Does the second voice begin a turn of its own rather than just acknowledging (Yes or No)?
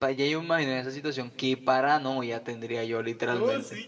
Yes